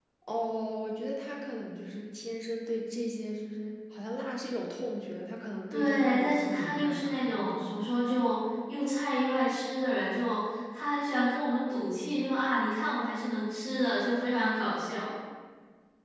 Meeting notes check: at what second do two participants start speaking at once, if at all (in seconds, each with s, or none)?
5.7 s